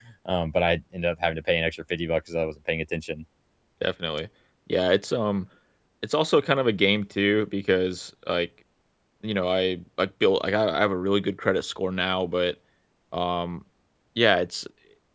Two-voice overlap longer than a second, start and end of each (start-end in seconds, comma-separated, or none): none